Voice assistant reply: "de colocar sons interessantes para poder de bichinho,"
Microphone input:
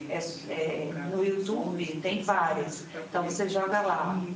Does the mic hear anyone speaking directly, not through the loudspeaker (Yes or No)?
Yes